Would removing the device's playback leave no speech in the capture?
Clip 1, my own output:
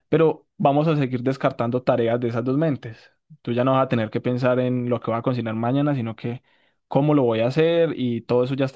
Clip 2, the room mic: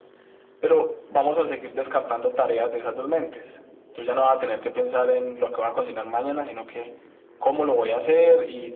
Yes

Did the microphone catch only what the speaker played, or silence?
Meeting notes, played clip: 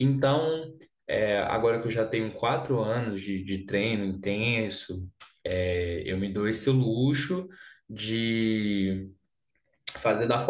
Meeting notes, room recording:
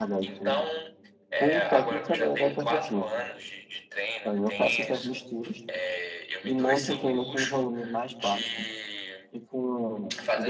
No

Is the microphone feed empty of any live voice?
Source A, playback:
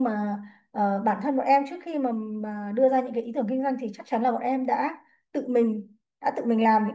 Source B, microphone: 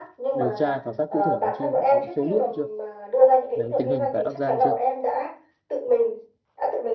No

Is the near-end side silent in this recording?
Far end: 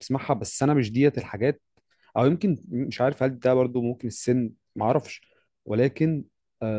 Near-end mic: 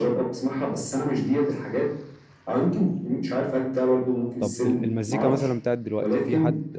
No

